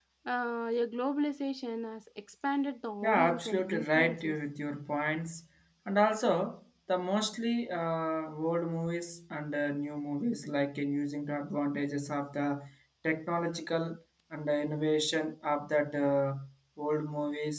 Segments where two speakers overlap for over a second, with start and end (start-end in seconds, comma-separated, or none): 3.0-4.4